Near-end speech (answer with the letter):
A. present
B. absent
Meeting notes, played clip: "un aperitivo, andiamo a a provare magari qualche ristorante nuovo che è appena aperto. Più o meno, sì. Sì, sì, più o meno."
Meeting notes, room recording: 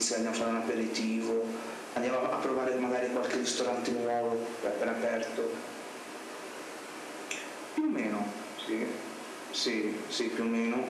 B